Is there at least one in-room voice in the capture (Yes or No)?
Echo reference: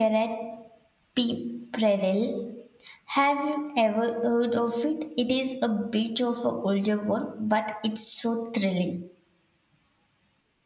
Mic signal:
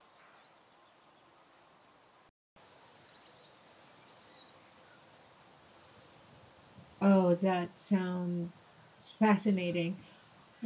Yes